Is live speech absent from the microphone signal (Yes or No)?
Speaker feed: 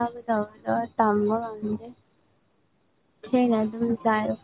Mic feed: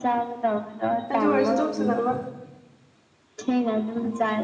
No